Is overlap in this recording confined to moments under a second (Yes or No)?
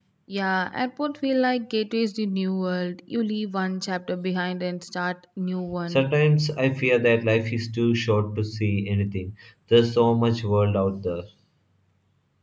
Yes